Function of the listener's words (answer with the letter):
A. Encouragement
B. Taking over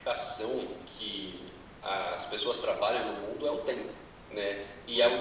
A